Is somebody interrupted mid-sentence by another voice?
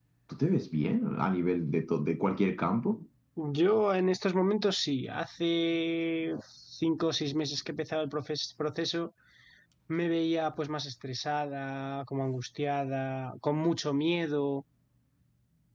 No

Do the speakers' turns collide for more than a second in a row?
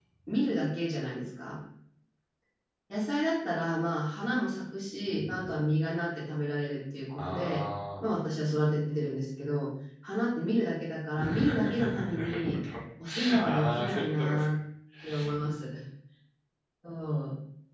Yes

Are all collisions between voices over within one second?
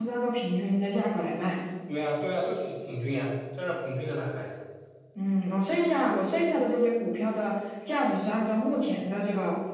Yes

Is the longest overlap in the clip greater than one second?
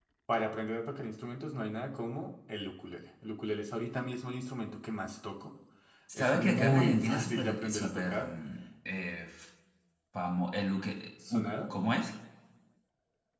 Yes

